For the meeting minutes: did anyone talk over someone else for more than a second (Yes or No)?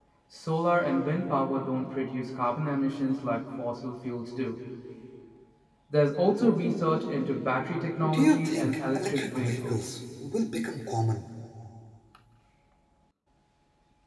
Yes